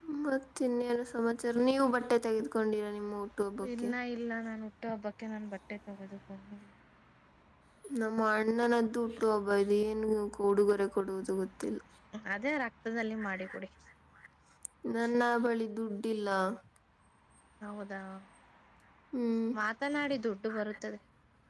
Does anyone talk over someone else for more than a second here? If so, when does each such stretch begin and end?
none

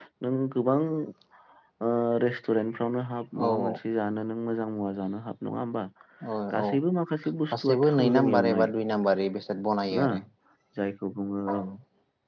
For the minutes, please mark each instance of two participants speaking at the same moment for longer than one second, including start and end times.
7.5-8.7

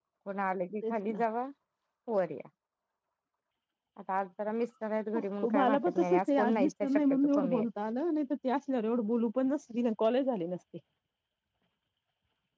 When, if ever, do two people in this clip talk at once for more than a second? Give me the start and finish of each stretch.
5.5-7.7

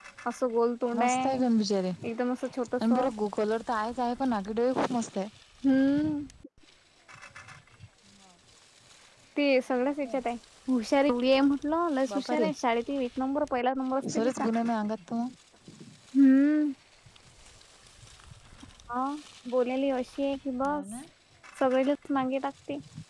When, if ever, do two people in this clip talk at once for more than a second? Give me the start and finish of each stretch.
none

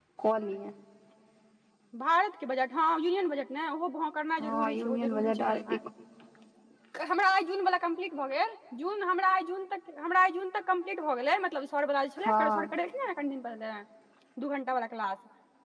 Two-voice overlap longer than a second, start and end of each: 4.4-5.8

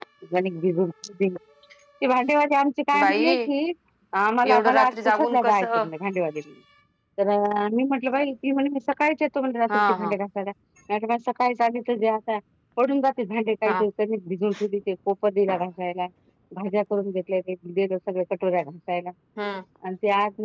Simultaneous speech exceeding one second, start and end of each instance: 4.4-5.7

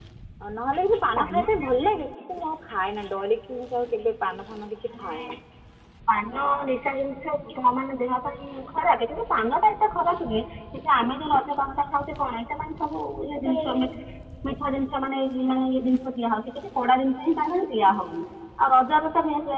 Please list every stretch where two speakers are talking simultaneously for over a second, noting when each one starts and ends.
none

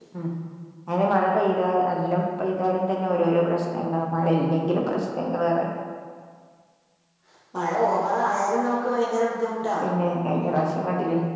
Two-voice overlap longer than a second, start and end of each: none

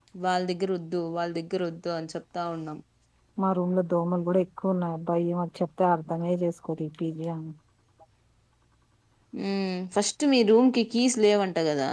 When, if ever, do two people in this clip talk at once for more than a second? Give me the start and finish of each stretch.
none

